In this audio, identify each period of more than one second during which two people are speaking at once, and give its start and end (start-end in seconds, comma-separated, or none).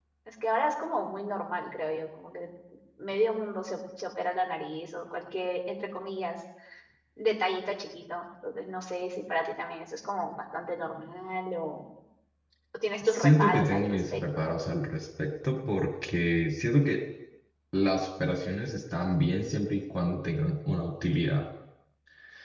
13.0-14.3